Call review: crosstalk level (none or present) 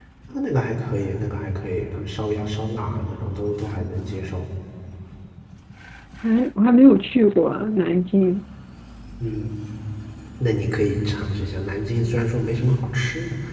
none